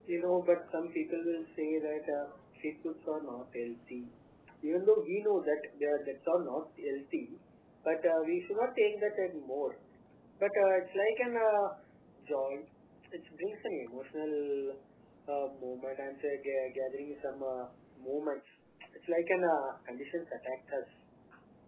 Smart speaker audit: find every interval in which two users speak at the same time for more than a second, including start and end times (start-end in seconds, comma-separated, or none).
none